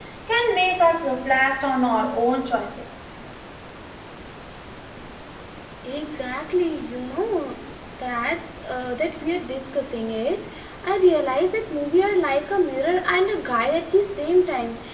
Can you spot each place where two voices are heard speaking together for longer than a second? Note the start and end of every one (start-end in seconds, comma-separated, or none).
none